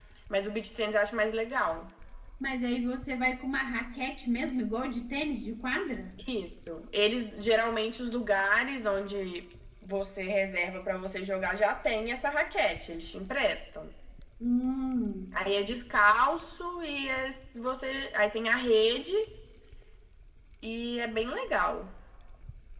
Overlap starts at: none

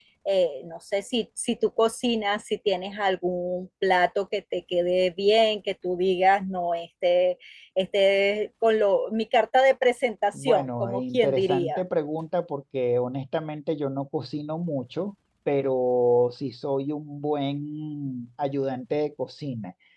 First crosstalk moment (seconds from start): 10.3 s

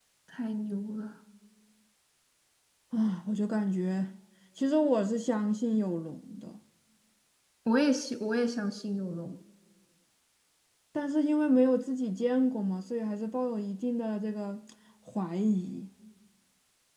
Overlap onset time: none

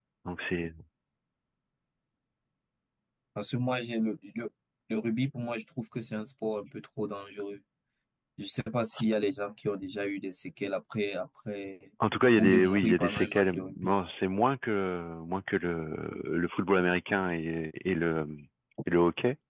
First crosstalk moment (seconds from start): 12.4 s

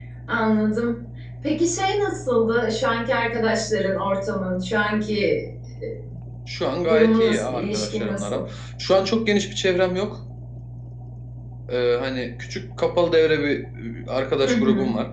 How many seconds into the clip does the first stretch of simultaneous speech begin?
6.9 s

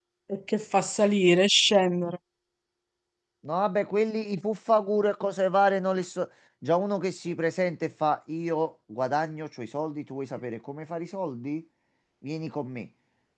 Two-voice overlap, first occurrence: none

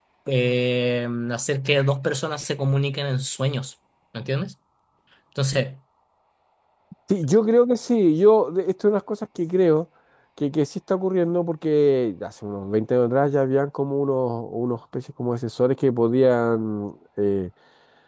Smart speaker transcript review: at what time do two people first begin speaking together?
none

